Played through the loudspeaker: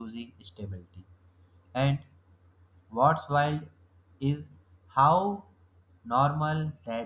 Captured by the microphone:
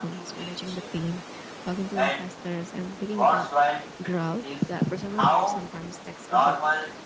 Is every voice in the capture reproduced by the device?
No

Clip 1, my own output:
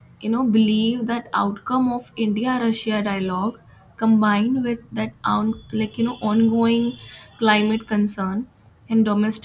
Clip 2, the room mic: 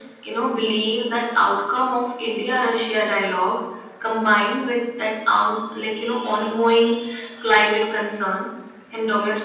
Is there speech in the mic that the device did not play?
No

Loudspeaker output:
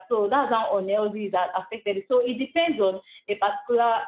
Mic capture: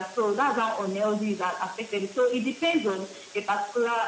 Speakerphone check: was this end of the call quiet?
Yes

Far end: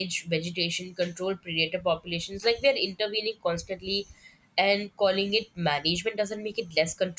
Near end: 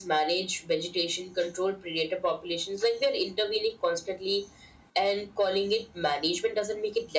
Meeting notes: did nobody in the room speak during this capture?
Yes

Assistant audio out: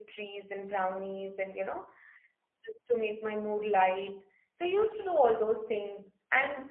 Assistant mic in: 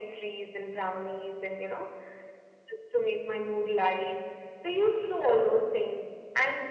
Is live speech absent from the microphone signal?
Yes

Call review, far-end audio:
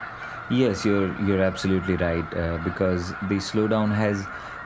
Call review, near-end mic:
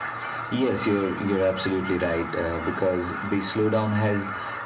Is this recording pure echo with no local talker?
Yes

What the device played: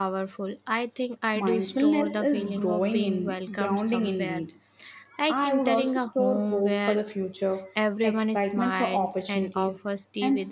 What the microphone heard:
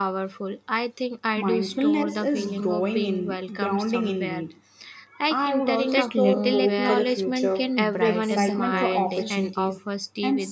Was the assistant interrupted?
Yes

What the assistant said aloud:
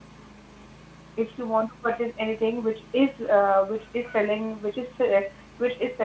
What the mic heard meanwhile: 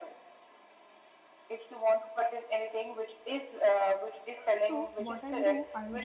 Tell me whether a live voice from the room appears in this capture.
Yes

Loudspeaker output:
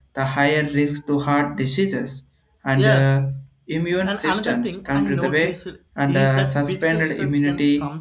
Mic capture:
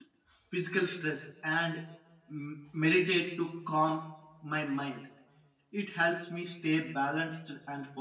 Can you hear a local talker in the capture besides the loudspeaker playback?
Yes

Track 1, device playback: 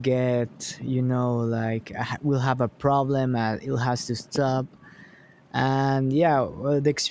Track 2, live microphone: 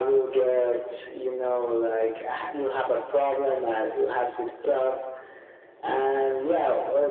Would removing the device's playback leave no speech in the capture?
Yes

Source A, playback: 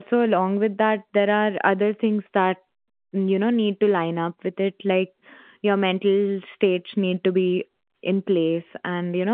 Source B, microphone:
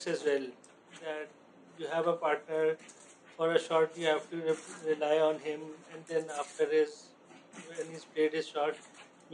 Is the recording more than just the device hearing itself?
Yes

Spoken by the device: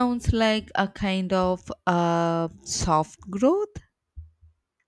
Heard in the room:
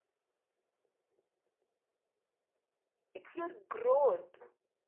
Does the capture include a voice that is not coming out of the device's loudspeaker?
Yes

